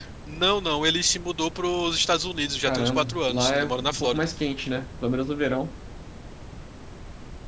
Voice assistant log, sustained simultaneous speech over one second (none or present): present